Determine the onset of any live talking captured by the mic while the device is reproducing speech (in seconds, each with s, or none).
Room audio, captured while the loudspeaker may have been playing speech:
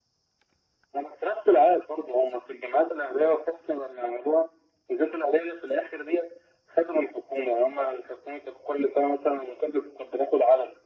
none